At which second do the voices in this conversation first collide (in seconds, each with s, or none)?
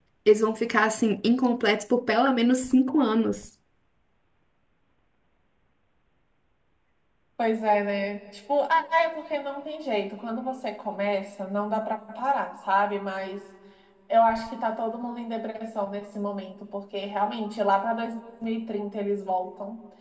none